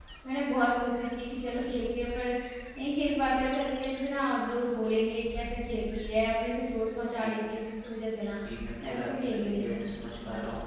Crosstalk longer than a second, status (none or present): present